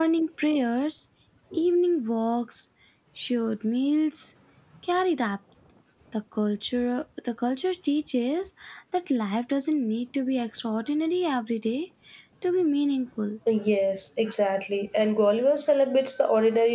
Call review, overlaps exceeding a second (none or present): none